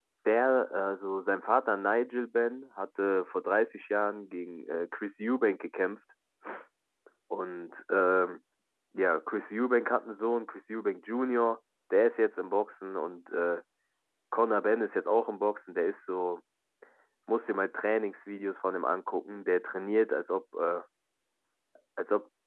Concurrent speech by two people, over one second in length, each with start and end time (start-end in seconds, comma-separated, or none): none